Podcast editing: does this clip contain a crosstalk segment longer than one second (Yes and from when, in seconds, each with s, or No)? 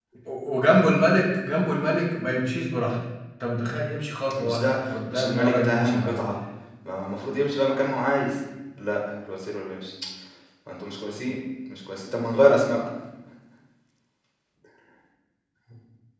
Yes, from 4.3 s